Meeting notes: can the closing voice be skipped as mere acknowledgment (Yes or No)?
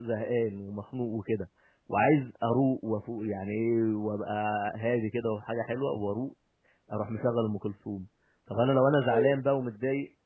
Yes